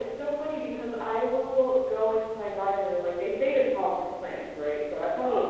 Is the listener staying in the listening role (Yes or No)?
Yes